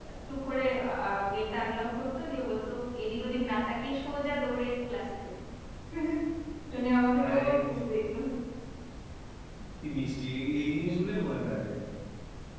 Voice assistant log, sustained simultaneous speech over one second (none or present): none